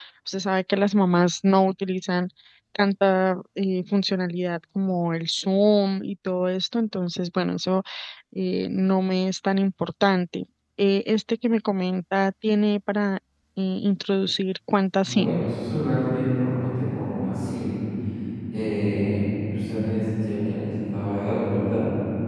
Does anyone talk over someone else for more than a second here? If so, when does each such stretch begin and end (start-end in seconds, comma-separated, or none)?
none